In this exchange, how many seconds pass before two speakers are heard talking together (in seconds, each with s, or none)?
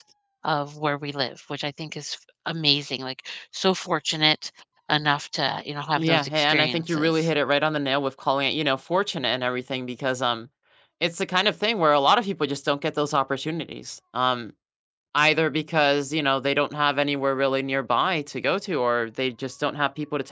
6.0 s